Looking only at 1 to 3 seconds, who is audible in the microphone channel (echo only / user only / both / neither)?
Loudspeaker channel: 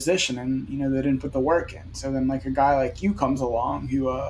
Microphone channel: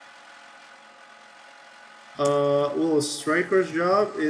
user only